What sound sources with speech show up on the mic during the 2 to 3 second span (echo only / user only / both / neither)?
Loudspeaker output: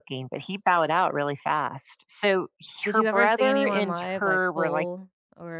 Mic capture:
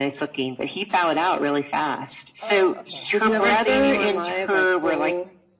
both